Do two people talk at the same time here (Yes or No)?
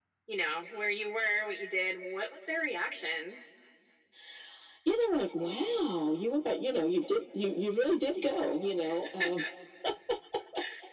No